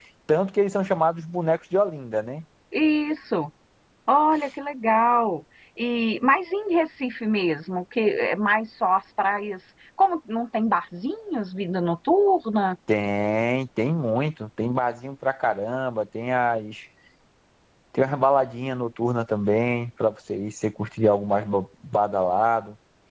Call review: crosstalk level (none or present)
none